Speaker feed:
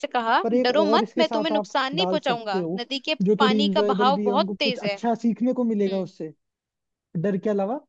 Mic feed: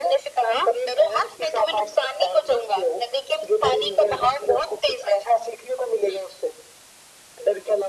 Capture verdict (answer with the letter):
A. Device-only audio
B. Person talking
A